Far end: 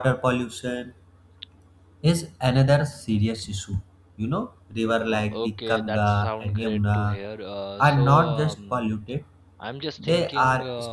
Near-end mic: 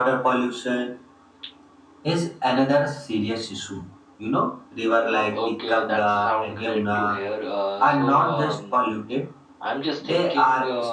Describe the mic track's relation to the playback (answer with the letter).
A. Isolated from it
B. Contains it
B